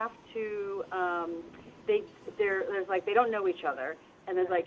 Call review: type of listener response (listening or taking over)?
listening